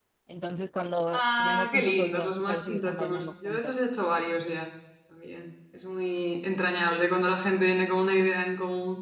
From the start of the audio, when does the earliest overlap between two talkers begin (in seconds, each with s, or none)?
1.1 s